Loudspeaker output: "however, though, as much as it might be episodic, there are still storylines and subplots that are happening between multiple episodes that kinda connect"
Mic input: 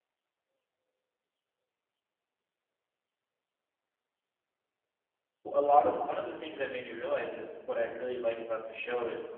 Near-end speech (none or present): present